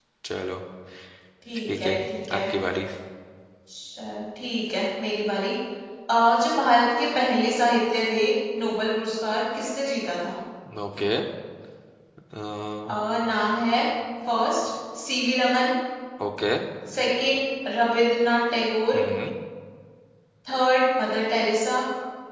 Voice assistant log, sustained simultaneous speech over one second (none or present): none